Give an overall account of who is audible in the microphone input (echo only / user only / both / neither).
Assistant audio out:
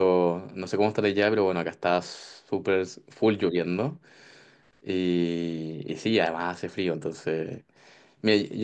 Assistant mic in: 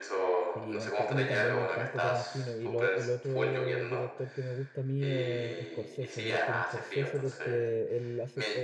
both